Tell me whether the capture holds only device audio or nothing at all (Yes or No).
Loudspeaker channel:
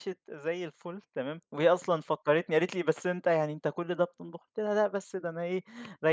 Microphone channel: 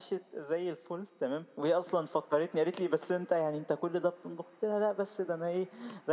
Yes